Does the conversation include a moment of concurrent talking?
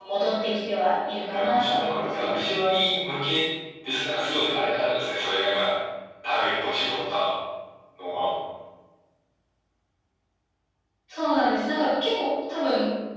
Yes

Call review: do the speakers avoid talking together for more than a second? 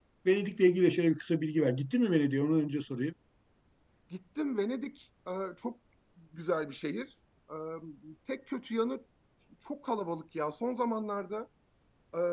Yes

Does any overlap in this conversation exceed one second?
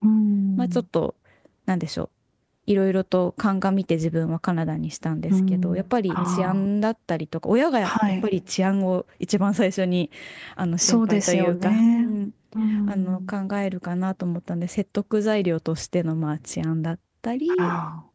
Yes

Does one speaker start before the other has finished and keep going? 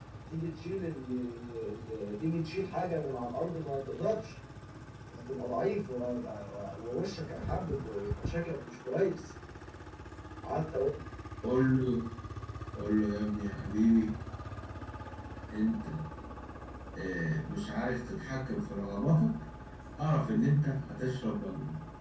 No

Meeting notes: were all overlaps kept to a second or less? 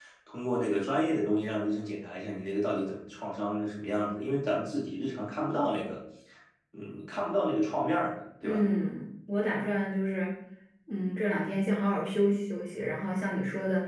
Yes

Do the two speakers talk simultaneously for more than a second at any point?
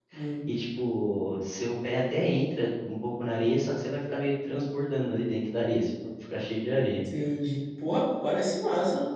No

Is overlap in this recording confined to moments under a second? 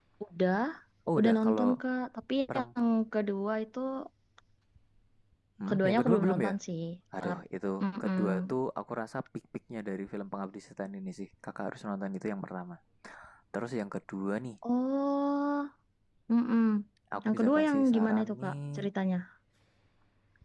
No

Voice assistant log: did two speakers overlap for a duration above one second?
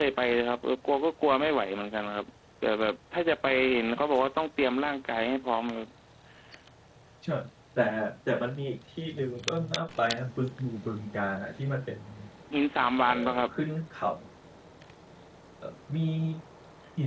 No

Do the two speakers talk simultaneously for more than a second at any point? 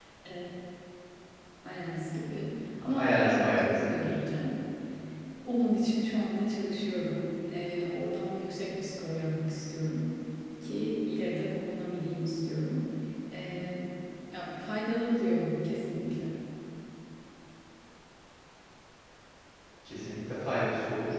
Yes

